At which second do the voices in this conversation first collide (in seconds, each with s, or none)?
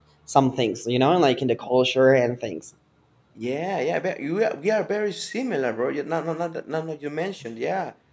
none